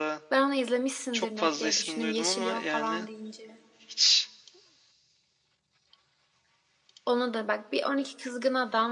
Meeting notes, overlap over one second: present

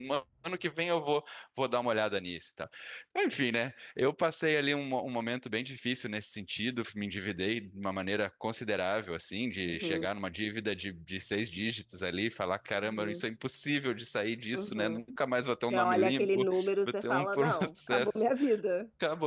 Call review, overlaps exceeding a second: present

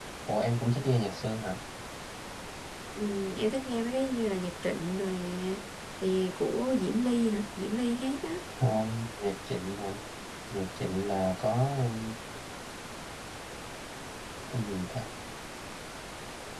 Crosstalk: none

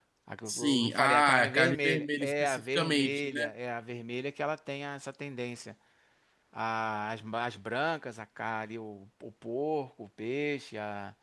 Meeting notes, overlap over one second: present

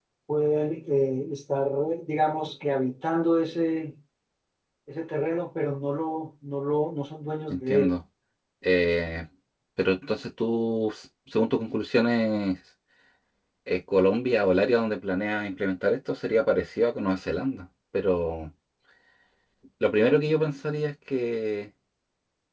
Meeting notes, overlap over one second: none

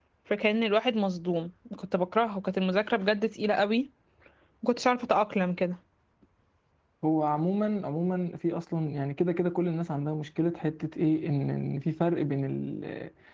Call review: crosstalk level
none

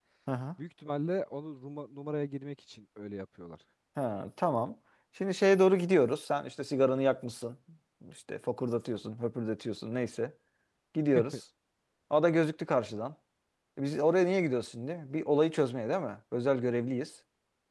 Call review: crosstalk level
none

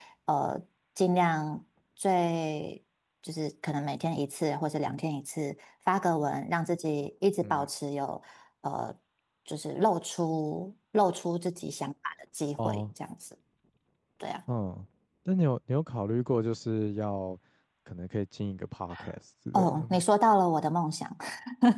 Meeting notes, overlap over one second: none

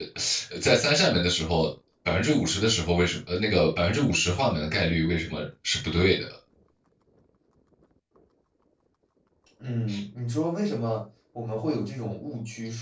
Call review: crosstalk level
none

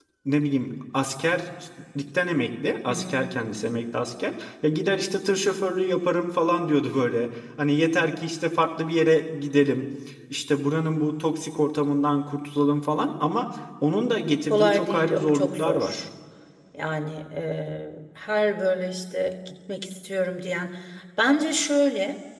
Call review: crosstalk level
present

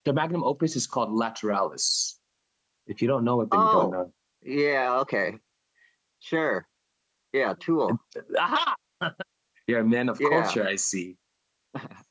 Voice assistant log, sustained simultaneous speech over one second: none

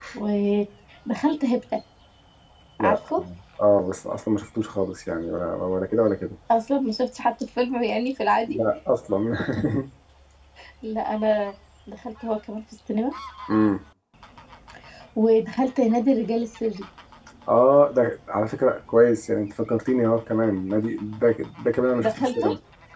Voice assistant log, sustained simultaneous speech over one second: none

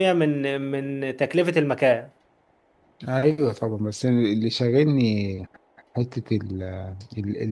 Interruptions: none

